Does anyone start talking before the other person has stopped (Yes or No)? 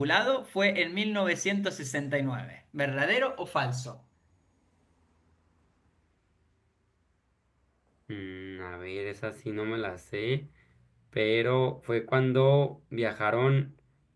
No